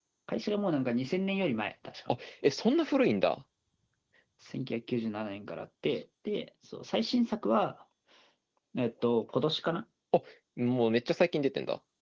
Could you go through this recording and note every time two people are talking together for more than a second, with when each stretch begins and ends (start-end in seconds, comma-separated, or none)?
none